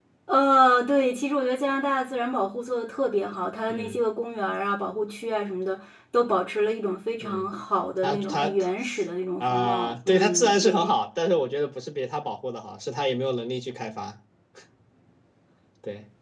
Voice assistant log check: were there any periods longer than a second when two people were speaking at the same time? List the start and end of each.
9.4-10.9

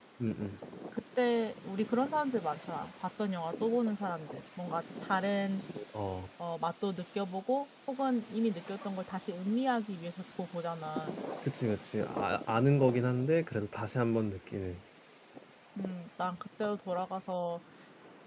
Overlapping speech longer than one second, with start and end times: none

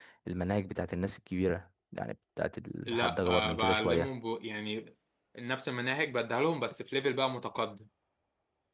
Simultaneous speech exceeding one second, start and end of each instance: 2.9-4.1

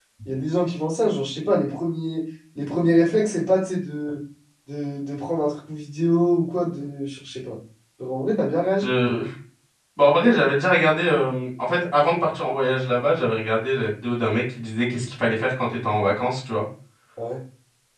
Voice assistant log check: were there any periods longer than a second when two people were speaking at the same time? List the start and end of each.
none

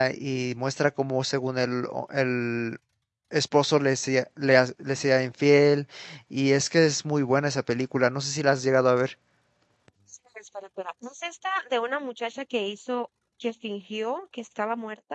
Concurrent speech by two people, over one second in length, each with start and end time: none

